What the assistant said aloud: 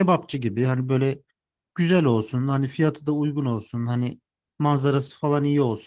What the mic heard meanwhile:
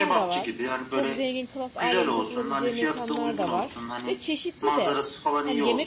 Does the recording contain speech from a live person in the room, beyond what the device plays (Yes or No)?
Yes